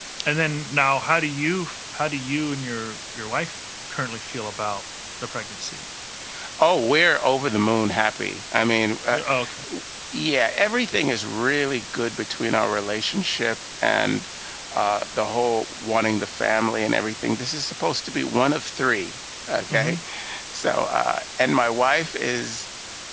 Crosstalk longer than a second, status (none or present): none